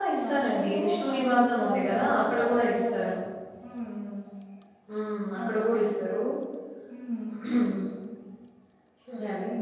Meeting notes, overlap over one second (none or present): present